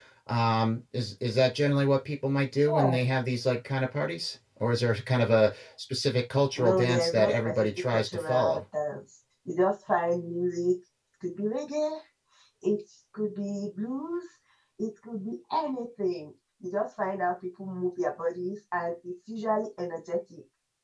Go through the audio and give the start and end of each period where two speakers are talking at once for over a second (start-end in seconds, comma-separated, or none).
6.6-8.6